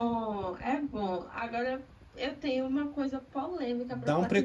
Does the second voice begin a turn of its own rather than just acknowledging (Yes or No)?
Yes